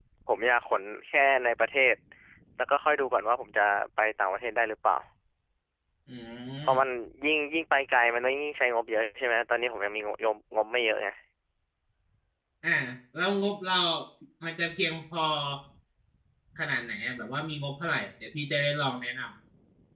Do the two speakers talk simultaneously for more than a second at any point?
No

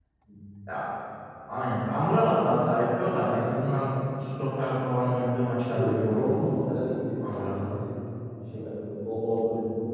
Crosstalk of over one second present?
Yes, from 5.1 s

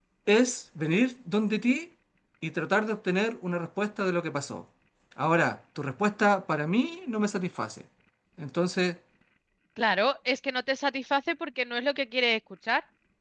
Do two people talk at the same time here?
No

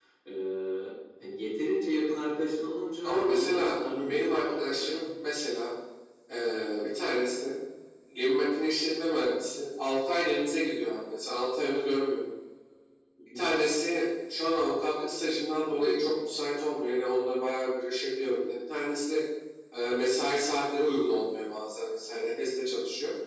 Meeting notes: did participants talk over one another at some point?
Yes, from 3.0 s

